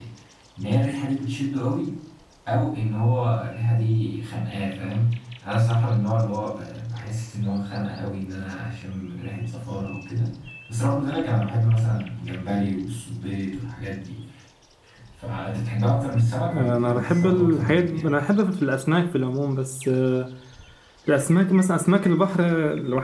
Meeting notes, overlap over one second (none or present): present